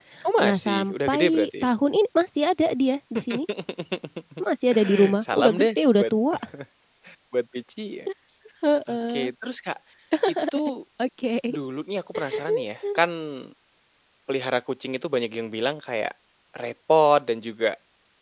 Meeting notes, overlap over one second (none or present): present